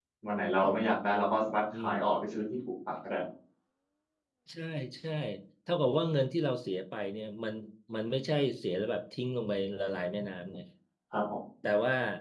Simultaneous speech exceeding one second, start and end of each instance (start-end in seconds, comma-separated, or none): none